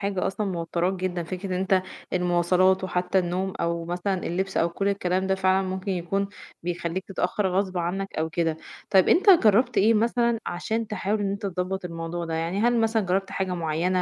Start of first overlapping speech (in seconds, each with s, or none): none